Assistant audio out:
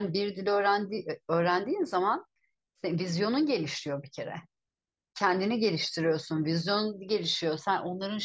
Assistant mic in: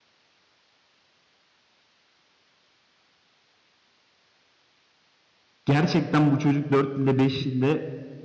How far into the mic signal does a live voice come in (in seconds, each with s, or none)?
5.6 s